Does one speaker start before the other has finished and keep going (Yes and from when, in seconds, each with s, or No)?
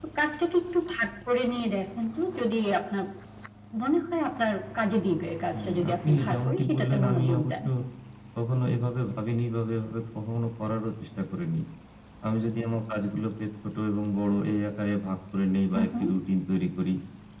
Yes, from 5.6 s